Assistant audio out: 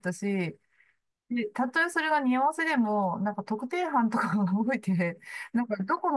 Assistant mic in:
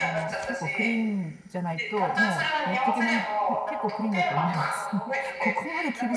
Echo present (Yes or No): Yes